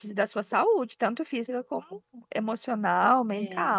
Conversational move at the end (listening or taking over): taking over